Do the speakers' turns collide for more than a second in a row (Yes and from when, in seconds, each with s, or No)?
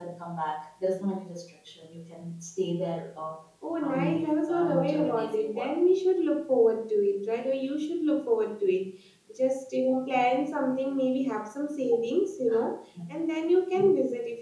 Yes, from 3.8 s